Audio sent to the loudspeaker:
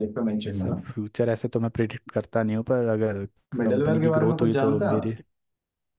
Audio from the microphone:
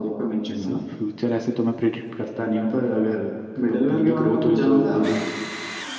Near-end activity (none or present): none